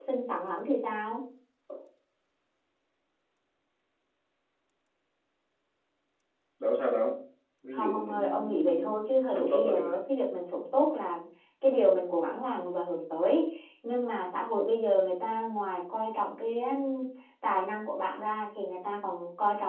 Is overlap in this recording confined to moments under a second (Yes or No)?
No